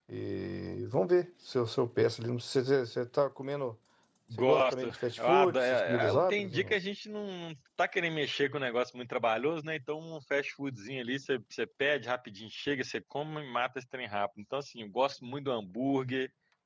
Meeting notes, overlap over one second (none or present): present